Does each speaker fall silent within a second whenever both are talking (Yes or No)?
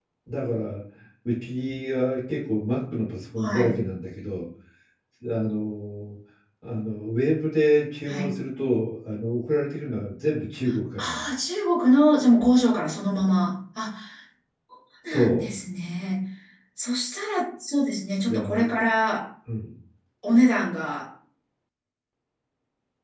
Yes